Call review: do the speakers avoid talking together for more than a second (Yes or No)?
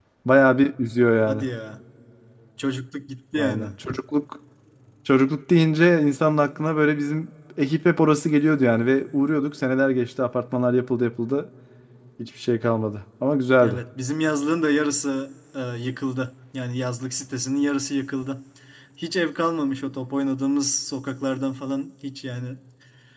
Yes